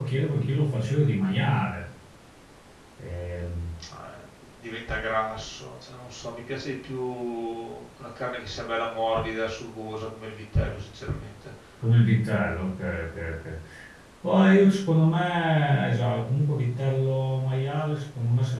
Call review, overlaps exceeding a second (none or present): none